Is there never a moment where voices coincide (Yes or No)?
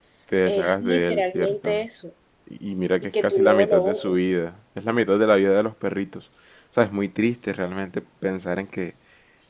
No